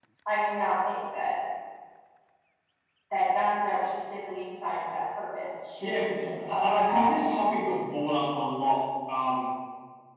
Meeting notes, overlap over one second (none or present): present